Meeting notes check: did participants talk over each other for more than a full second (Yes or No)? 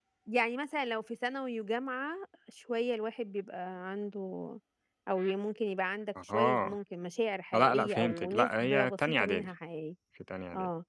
Yes